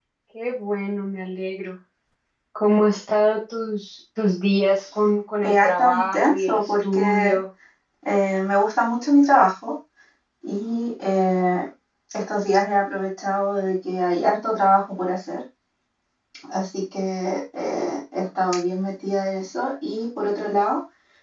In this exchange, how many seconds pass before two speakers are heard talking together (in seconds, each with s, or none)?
5.4 s